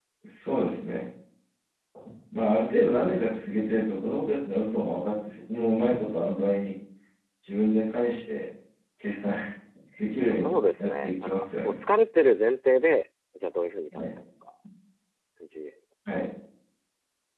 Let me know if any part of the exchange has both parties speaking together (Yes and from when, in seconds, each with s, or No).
Yes, from 10.3 s